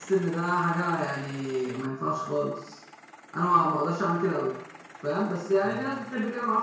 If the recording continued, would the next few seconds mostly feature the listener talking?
No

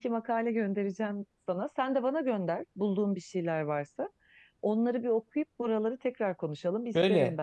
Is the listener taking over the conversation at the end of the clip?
Yes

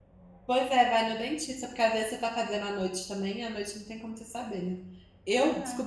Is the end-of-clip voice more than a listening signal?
No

